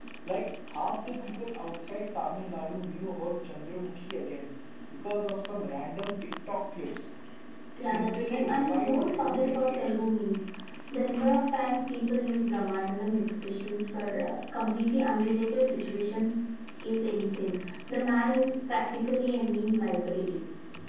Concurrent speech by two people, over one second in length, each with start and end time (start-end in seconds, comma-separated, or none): 7.9-9.8